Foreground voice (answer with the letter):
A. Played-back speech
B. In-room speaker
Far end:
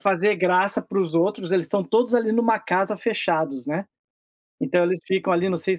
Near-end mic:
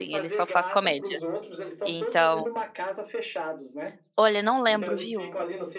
B